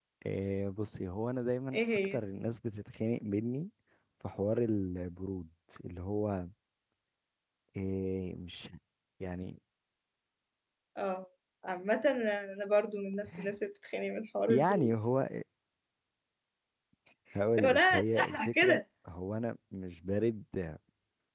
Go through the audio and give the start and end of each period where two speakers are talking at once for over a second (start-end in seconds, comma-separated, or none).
17.6-18.8